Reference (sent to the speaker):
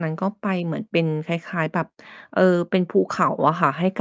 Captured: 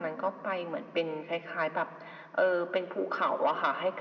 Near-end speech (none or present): none